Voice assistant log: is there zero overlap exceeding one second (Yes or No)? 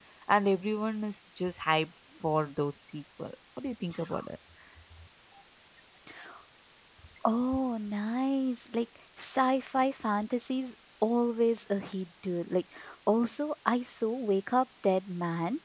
Yes